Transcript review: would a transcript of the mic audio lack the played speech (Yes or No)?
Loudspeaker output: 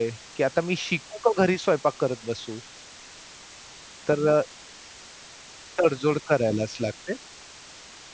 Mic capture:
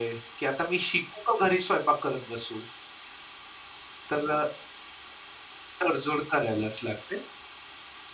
No